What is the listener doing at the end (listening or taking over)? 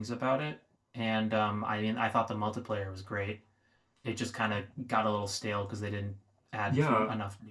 taking over